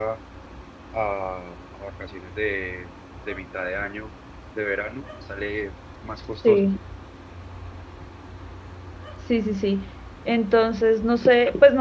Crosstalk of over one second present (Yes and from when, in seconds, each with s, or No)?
No